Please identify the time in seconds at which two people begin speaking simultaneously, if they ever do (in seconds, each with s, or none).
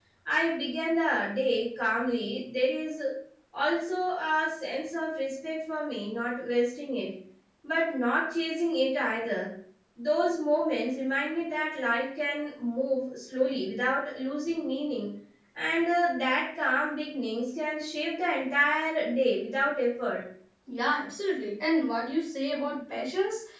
none